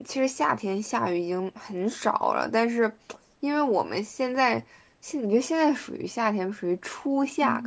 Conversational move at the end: taking over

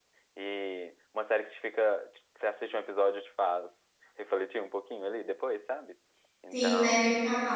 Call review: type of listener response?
taking over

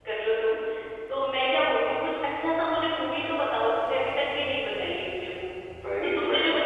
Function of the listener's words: listening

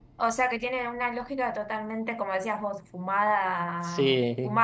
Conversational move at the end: listening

